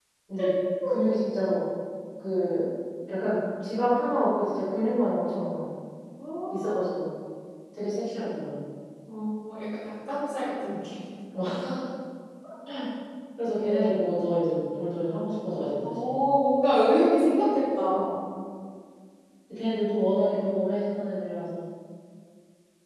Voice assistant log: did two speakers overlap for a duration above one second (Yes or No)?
No